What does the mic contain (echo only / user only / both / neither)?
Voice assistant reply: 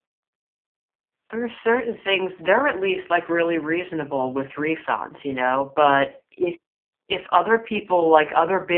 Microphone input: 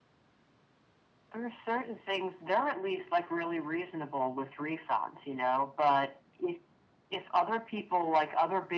echo only